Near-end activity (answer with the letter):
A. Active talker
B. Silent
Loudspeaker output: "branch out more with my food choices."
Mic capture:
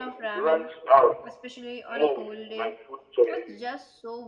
A